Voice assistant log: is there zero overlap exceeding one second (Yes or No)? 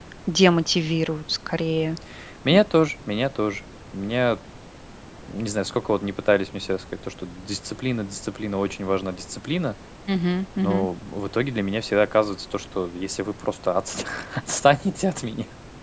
Yes